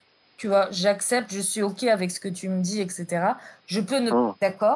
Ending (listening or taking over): listening